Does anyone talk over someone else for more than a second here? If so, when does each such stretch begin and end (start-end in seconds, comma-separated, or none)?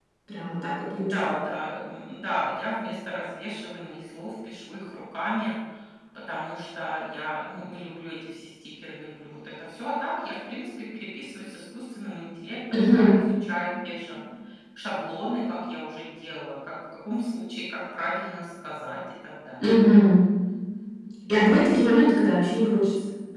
none